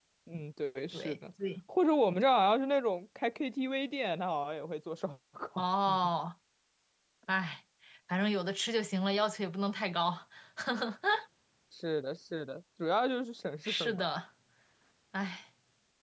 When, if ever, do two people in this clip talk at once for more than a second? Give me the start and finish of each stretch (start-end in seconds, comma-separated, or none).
none